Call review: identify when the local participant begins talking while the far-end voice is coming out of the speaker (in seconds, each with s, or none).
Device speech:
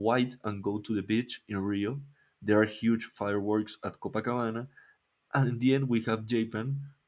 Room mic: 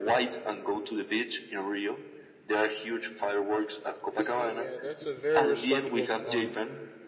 4.0 s